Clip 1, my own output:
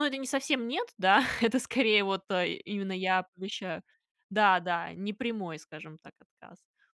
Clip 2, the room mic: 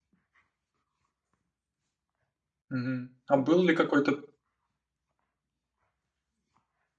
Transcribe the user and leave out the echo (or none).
Мгм. А был ли какой-то